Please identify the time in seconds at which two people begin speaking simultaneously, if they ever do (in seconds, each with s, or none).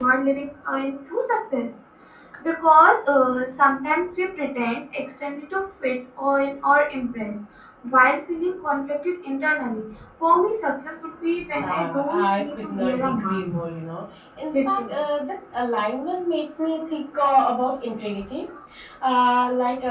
11.6 s